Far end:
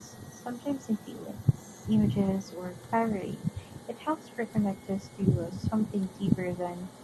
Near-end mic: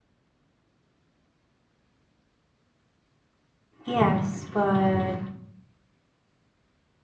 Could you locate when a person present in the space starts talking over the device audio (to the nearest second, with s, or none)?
4 s